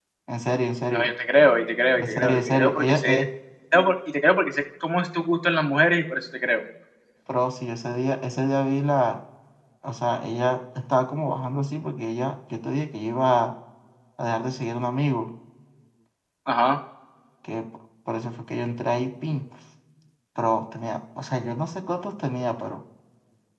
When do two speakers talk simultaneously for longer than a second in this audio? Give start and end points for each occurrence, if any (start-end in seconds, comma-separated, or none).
2.0-3.2